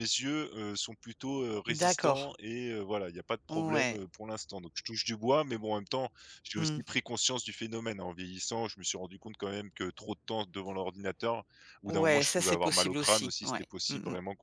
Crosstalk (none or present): present